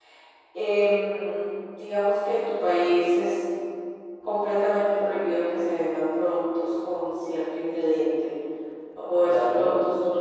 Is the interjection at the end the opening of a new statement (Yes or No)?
No